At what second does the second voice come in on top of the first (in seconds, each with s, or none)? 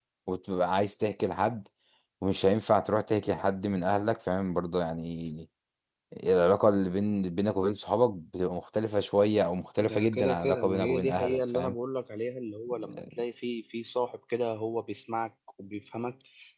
9.8 s